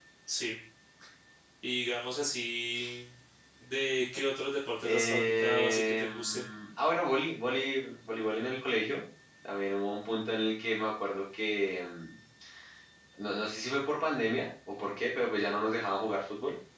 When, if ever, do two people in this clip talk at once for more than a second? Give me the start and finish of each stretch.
4.8-6.5

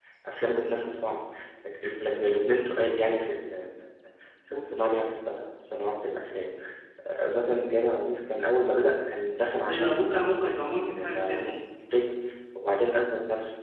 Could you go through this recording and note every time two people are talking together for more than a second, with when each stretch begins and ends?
9.7-11.4

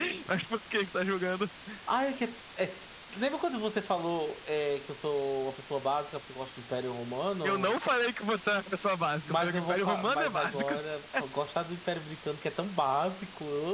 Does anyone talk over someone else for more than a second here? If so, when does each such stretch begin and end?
9.2-10.7

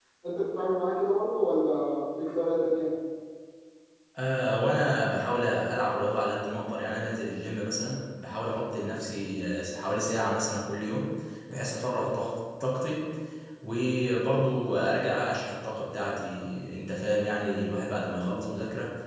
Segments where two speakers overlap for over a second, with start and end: none

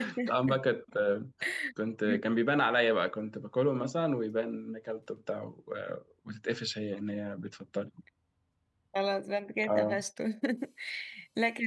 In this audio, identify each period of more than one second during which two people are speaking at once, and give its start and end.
none

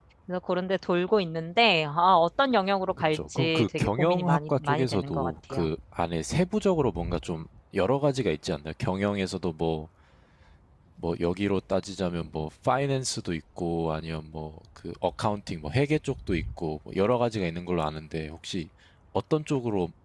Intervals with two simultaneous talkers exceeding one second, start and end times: 3.1-5.7

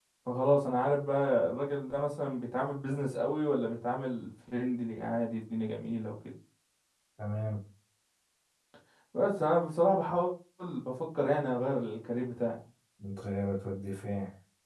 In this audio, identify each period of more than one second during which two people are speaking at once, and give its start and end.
none

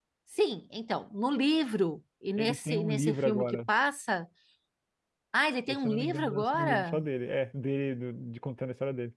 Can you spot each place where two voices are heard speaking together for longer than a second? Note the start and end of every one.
2.4-3.6, 5.7-7.0

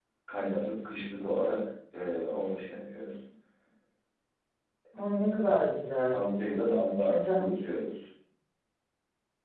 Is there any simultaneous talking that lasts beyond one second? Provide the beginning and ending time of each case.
none

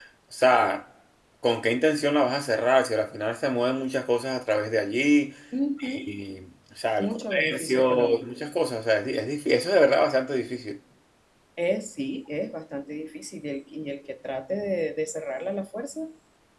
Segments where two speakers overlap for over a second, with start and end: 7.0-8.3

